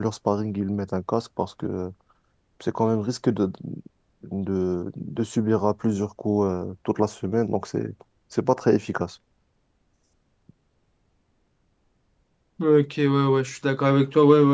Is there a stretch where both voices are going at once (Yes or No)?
No